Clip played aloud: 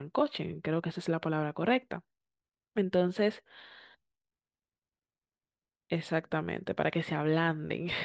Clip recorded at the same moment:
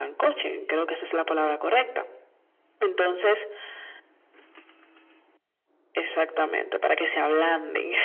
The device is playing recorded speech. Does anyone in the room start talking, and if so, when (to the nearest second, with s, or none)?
none